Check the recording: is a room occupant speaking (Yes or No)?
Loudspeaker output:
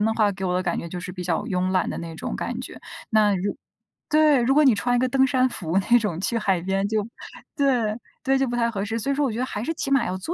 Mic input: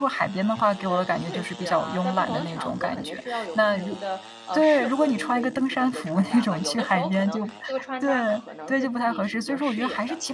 Yes